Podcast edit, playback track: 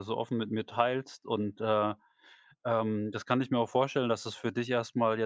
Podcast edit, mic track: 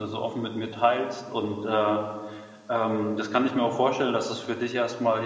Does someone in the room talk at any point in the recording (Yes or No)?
No